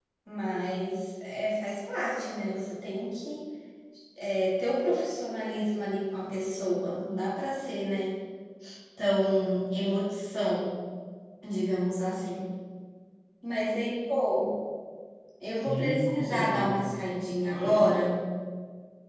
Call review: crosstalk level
present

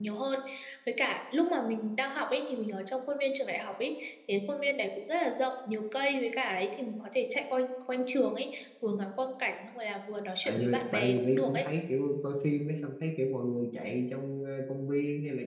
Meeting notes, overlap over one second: present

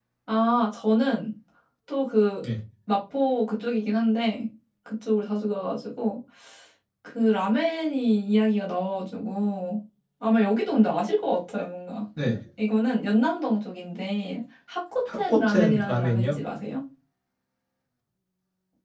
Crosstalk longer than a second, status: present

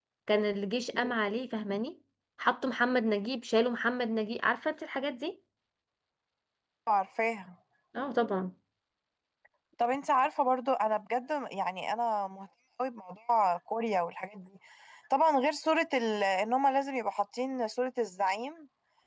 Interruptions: none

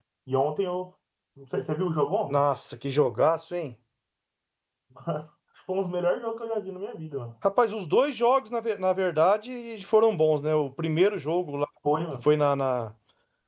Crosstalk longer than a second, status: none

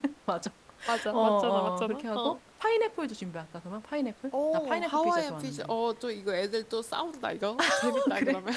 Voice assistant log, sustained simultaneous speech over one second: present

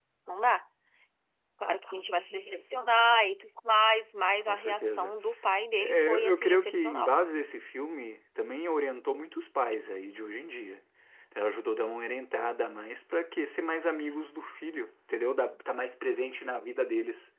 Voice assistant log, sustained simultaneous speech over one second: present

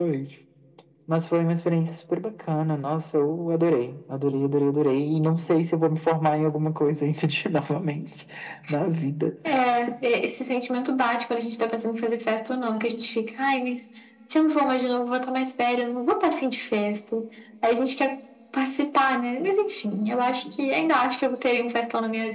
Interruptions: none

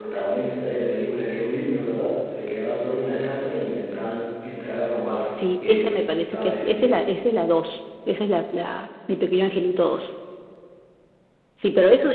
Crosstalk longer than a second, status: present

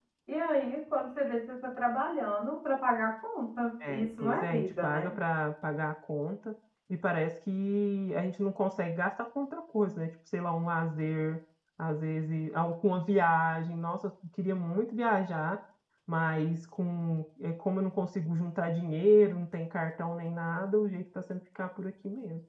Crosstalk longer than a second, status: present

